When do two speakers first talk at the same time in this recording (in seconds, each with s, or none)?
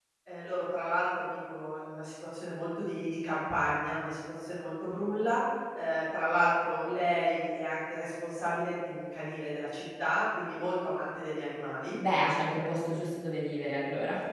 none